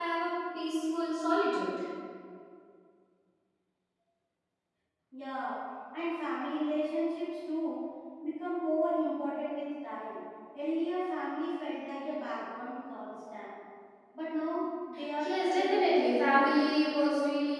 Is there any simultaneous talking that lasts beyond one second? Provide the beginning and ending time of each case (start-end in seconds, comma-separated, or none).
15.2-16.4